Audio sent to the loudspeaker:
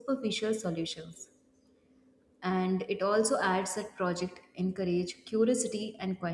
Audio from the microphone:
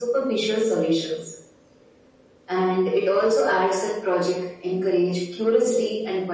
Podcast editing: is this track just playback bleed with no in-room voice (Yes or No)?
Yes